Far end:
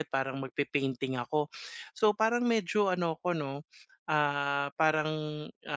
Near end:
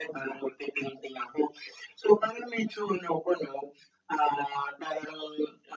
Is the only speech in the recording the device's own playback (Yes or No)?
Yes